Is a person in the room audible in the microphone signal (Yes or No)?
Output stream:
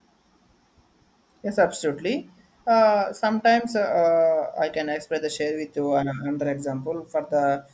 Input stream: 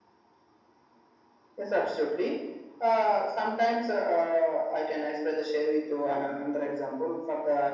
No